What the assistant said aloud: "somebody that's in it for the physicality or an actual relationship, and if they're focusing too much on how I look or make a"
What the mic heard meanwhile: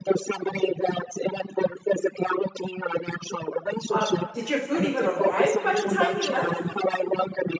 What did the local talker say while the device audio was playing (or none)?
Uh, did your food even arrive by the time he left?